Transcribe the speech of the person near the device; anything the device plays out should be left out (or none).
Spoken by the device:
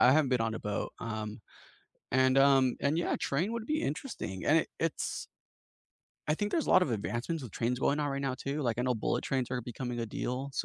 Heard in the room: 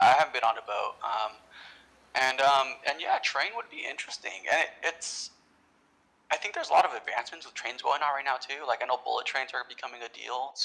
none